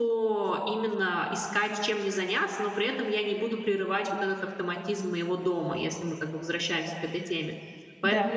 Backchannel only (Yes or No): Yes